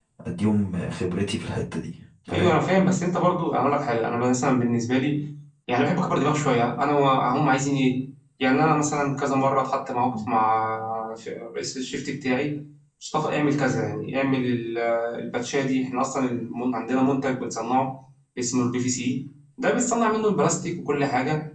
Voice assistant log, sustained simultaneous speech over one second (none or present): none